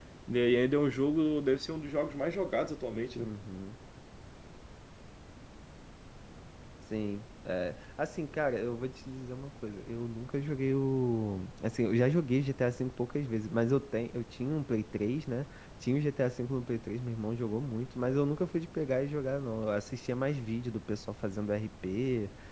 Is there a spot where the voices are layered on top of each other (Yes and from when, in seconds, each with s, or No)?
No